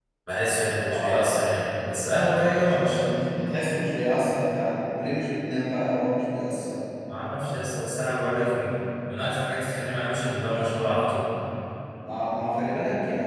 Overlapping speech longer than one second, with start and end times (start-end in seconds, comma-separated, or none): none